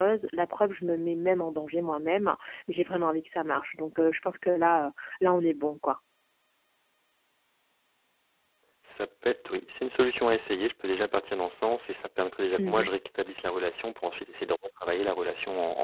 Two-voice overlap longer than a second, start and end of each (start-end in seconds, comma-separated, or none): none